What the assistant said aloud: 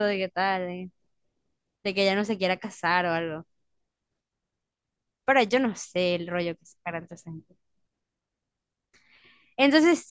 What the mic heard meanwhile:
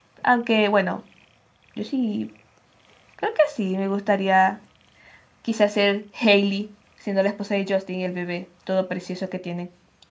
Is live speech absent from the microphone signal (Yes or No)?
No